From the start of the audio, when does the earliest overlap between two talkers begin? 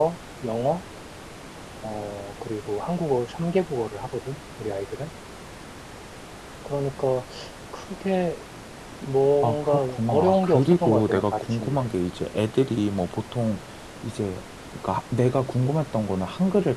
9.4 s

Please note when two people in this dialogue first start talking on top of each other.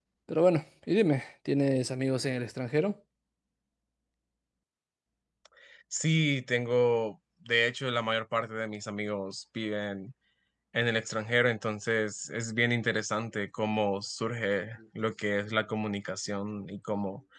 none

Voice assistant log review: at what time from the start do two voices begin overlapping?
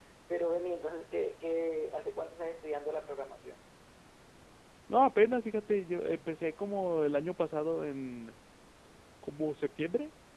none

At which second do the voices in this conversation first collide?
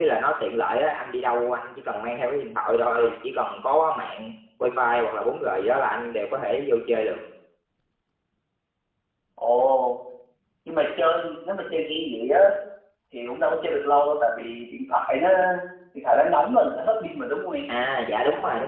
none

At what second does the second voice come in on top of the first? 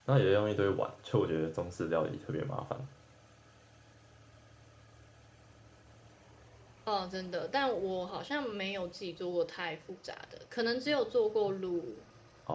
none

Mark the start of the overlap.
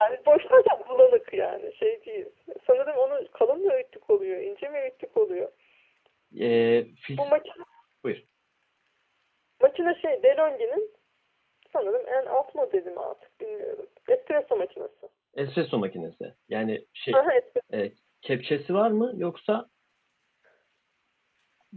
none

